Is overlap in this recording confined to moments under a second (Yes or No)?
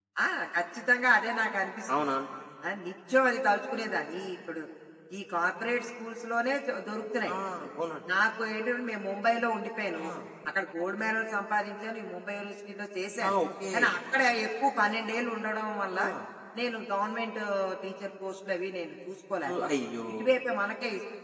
Yes